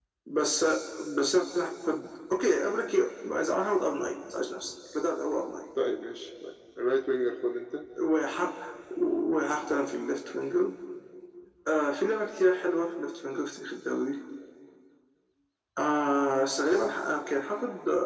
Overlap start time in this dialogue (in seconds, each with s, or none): none